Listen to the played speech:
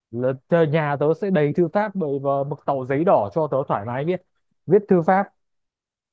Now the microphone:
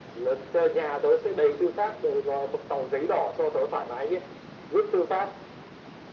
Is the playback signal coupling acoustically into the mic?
Yes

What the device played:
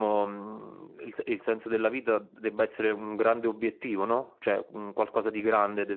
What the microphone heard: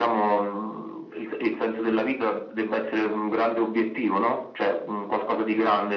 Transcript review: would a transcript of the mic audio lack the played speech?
No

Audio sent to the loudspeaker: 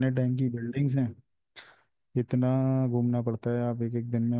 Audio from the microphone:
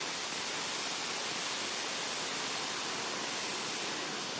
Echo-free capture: Yes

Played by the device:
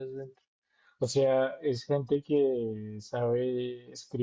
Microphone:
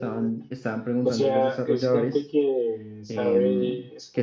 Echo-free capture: No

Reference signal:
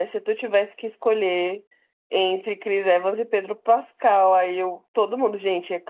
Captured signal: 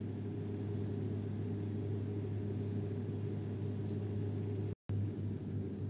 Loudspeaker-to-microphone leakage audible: No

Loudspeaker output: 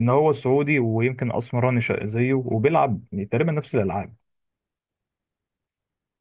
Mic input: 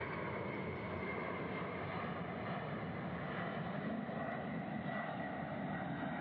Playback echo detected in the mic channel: No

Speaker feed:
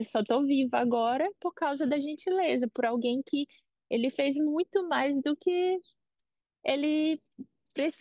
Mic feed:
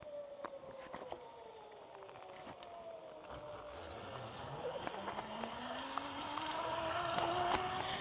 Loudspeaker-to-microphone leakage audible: No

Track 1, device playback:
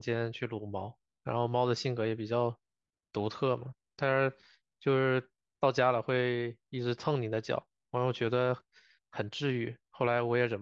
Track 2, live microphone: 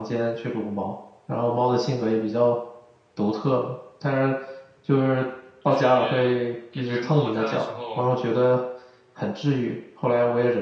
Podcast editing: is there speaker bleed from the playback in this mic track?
Yes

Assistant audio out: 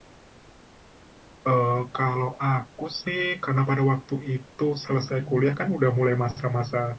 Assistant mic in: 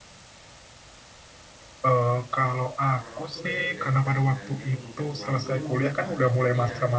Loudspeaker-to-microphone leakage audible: Yes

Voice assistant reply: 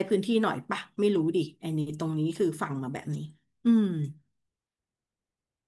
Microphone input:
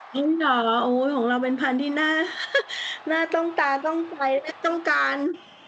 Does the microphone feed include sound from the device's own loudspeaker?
No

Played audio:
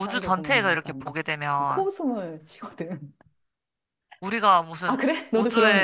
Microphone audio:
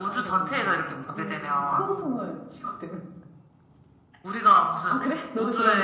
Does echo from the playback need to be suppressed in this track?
Yes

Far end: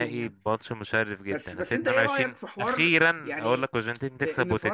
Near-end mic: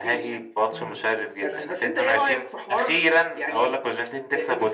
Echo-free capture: No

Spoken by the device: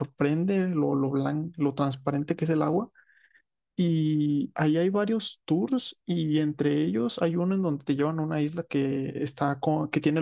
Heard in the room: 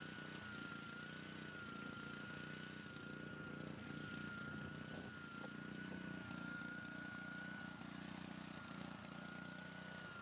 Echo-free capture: Yes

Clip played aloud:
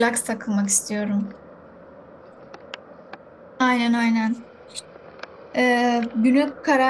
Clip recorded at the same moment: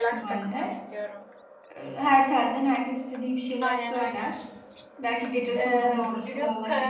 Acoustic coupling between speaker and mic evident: Yes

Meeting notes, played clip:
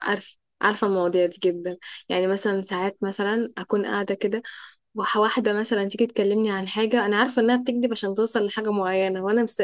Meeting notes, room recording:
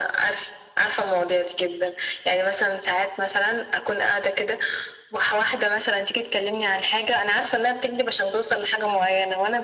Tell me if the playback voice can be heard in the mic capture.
Yes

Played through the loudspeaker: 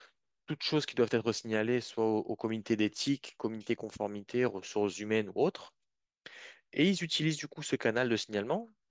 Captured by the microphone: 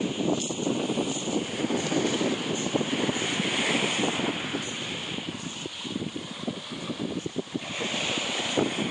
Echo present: No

